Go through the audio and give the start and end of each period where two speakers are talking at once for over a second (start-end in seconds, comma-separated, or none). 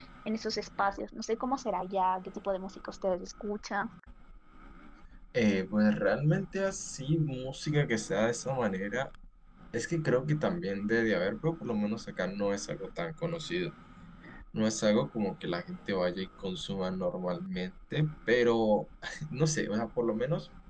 none